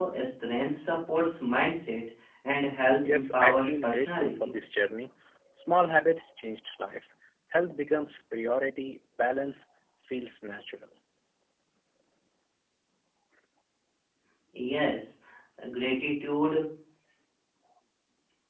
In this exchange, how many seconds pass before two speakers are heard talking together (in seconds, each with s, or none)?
3.1 s